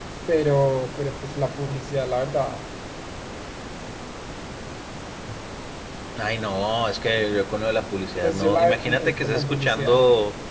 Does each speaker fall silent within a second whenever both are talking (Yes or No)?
No